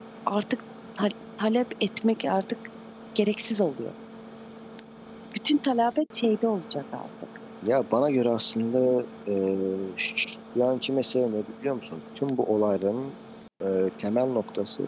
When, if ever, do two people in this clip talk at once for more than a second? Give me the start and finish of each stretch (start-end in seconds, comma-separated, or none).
none